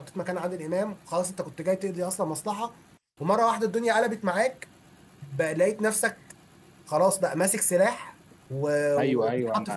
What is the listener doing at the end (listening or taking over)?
taking over